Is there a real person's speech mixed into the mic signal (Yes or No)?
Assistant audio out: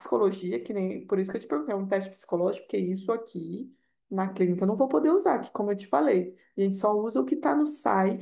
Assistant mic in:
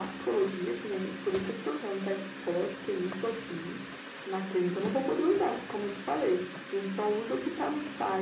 No